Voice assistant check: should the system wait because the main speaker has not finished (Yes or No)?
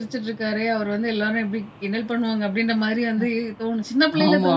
Yes